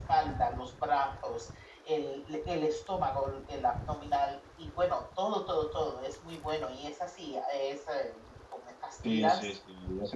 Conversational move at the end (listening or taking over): taking over